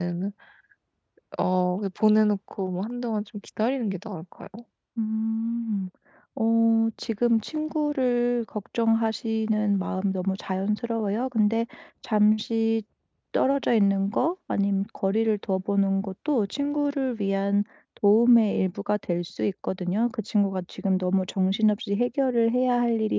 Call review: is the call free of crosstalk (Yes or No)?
Yes